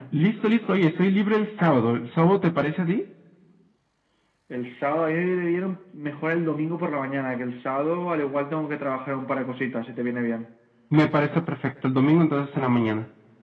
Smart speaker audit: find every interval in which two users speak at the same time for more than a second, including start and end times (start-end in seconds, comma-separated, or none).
none